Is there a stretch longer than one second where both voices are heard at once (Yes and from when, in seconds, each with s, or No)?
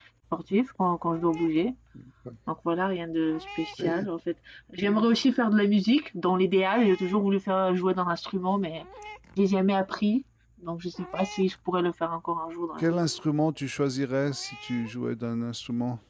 No